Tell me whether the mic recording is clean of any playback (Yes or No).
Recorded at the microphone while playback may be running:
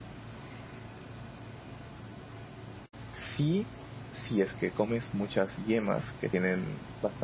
Yes